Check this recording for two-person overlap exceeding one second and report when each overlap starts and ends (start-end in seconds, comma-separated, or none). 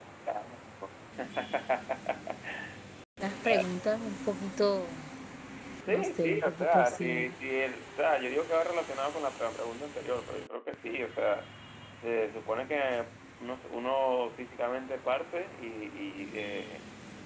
5.9-7.3